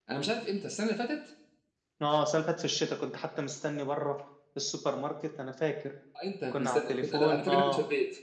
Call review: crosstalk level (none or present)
present